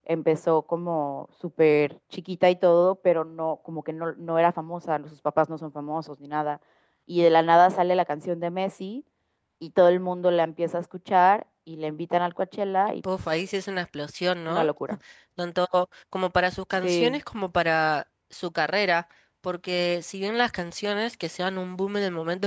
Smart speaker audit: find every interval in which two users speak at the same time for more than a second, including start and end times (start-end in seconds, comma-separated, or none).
none